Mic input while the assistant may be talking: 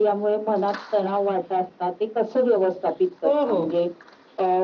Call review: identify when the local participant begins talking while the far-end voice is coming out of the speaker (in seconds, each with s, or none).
3.2 s